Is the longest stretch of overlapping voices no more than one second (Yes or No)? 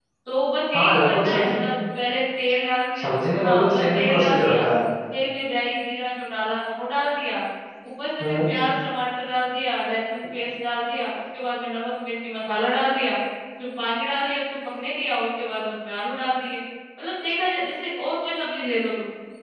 No